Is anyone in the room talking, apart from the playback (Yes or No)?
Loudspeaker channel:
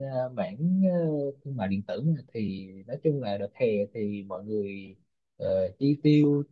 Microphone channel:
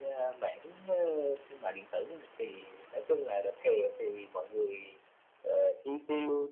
No